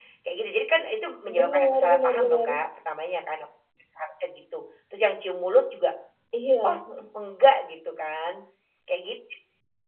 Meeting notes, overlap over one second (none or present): present